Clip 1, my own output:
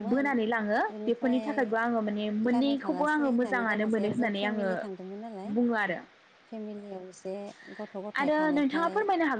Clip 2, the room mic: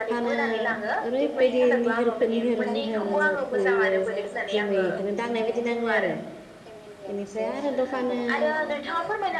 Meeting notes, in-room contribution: present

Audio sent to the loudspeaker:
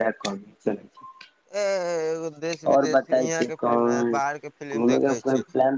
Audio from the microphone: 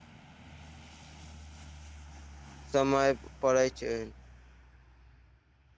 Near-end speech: present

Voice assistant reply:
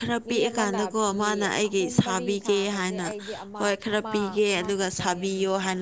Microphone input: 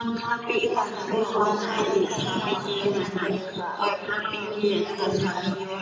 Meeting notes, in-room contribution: present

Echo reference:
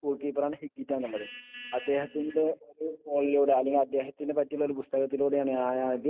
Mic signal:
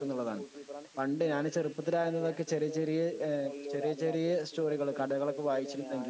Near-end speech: present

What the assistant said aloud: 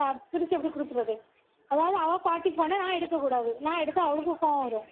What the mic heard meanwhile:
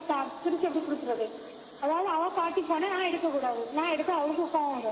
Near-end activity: none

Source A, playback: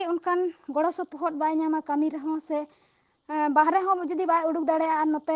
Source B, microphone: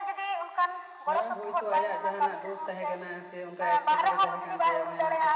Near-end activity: present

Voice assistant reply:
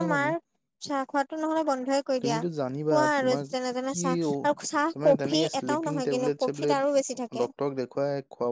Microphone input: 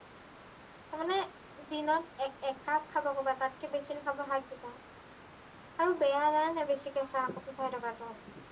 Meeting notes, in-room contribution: present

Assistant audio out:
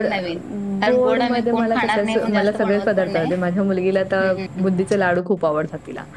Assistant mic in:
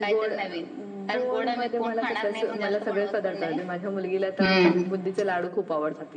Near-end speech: present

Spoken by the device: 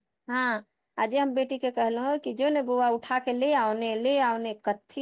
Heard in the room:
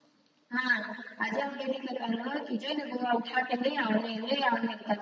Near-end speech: none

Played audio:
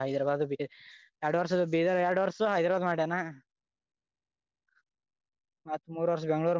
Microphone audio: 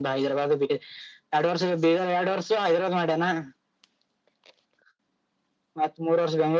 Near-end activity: none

